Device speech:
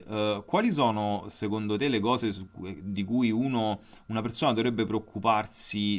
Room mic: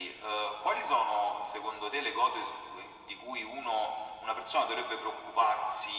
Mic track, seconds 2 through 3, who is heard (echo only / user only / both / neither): echo only